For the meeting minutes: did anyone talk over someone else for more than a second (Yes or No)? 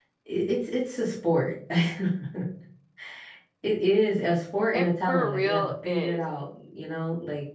Yes